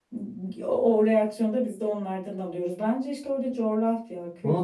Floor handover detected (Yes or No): Yes